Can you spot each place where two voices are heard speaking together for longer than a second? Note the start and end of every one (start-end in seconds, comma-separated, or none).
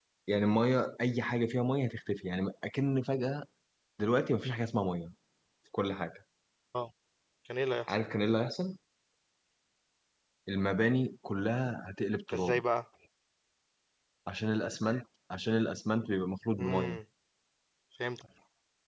none